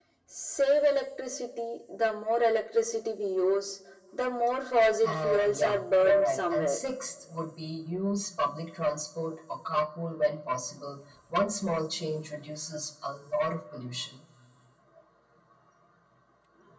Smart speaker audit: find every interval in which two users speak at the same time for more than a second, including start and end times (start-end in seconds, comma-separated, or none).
5.0-6.8